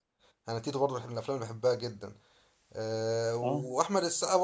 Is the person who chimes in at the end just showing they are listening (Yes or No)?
Yes